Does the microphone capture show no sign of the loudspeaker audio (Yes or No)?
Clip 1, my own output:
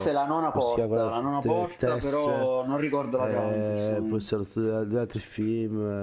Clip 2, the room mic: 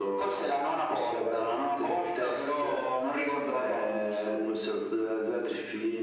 No